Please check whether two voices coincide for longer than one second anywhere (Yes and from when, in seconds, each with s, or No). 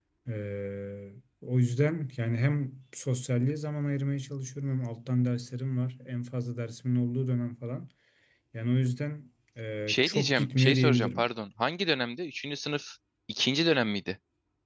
Yes, from 9.9 s